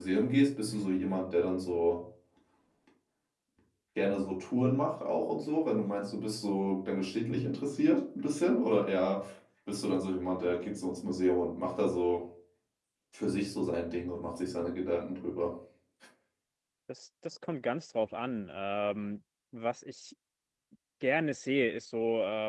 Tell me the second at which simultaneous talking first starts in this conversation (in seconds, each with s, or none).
none